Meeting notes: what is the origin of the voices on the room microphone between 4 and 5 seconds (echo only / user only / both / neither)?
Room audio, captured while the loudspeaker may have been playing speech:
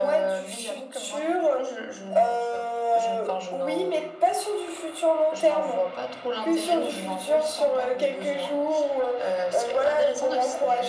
echo only